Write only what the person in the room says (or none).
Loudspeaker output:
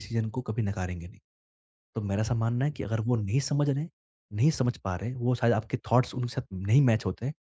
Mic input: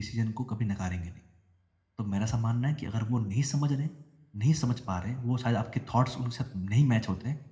none